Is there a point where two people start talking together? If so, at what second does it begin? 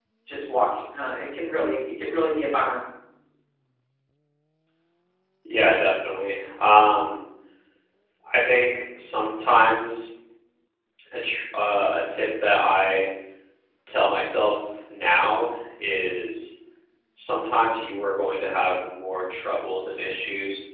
none

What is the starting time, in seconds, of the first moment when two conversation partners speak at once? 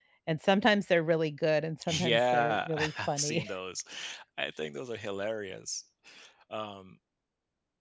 1.8 s

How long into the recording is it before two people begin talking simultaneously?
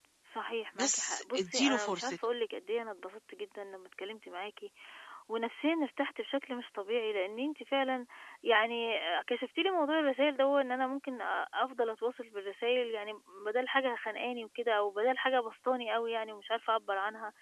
0.8 s

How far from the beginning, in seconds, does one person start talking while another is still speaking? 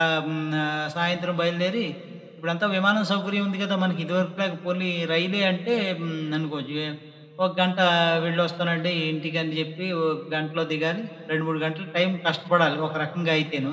none

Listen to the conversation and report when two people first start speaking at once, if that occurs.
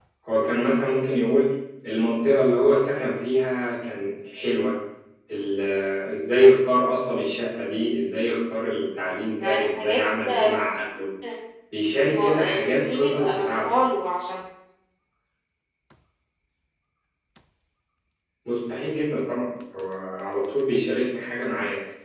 9.4 s

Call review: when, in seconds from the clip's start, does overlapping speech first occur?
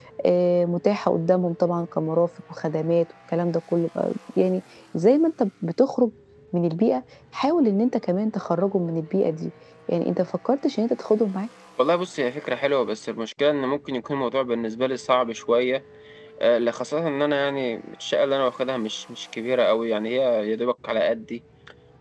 none

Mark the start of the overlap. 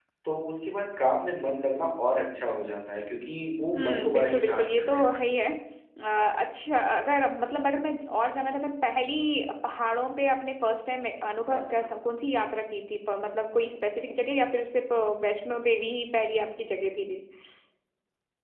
3.7 s

